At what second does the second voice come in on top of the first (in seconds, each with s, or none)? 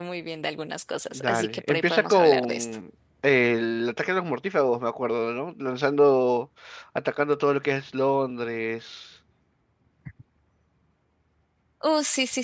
1.1 s